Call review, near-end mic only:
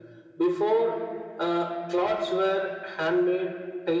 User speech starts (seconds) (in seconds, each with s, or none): none